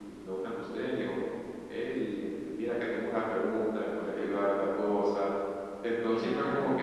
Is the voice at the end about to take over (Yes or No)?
No